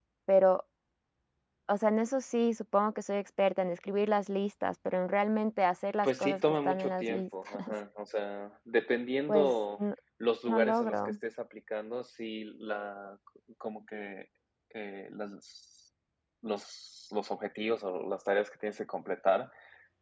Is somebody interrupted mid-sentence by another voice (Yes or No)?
Yes